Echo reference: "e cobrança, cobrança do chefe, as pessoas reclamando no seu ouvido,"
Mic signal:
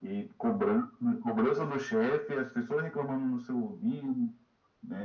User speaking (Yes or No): No